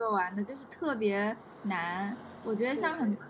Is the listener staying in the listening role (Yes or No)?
Yes